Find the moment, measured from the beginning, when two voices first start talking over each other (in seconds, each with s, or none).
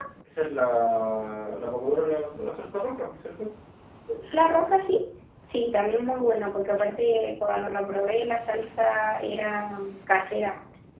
none